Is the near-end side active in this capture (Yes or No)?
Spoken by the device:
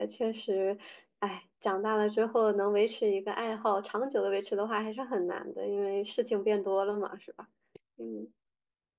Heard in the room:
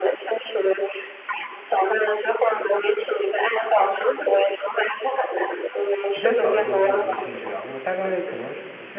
Yes